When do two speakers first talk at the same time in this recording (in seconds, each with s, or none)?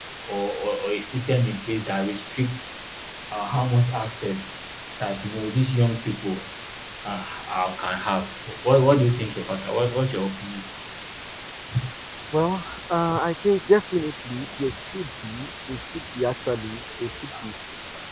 none